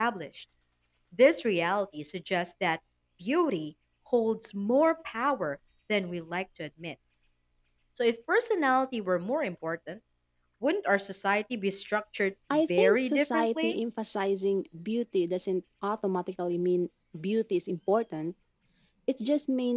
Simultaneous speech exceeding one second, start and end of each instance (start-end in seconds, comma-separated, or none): 12.5-13.8